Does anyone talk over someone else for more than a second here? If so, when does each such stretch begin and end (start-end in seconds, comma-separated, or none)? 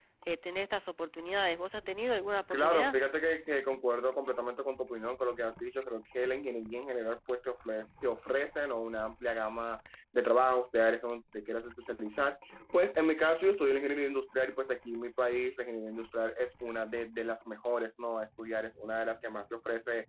none